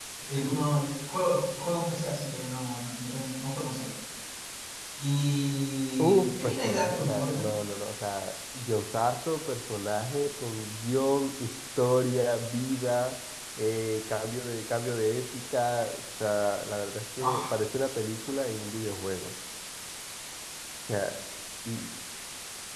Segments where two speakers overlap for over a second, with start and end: 6.0-7.5

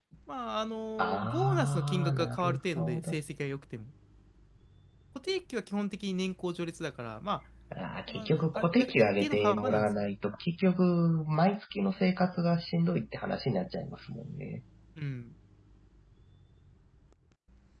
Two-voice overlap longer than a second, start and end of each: 1.0-3.2, 8.1-10.1

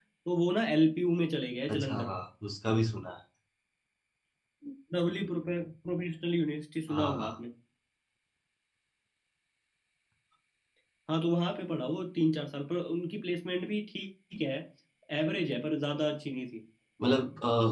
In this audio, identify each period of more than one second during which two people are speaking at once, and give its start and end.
none

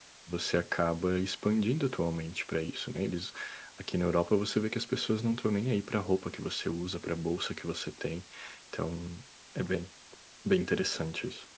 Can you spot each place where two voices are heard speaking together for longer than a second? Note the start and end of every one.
none

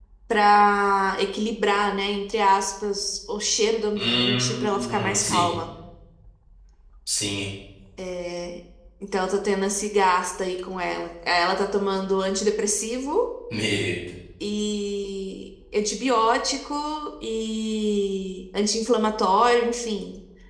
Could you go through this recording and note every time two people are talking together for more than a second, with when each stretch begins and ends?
4.0-5.5

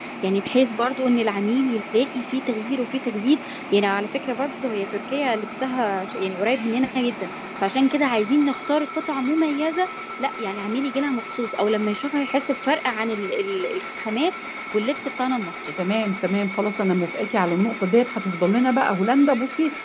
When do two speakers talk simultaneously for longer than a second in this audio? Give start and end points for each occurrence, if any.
none

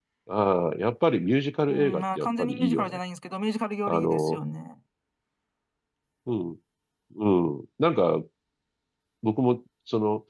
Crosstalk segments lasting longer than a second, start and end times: 1.7-3.0

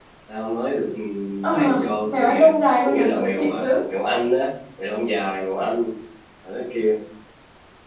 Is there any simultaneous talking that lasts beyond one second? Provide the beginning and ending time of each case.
2.0-3.6

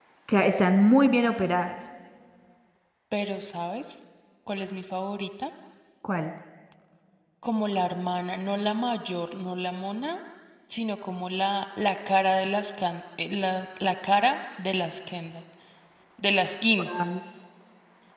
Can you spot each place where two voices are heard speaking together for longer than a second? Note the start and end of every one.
none

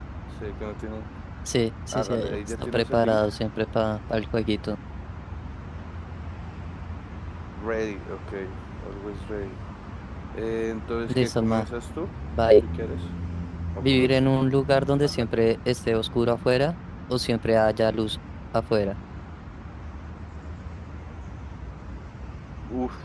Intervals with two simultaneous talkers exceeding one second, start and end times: 1.9-3.2

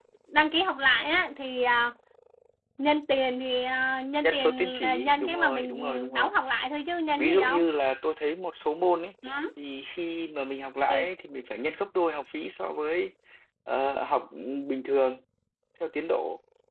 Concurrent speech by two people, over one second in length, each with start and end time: 4.2-6.3

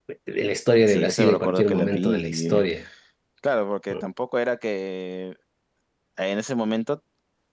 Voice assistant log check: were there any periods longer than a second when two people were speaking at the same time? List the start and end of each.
0.9-2.6

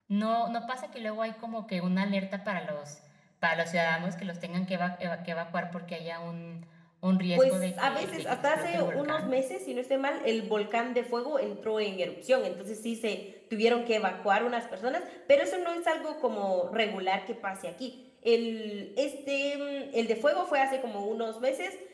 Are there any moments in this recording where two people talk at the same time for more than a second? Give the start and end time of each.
7.3-9.3

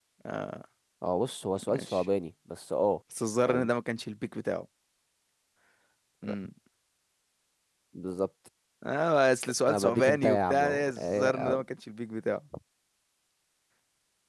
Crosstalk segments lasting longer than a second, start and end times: 9.7-11.6

